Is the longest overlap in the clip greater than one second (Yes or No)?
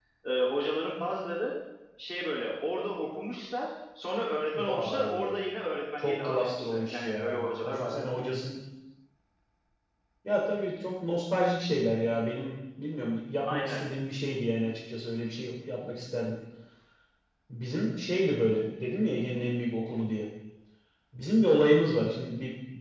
Yes